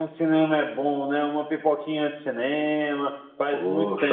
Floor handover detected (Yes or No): Yes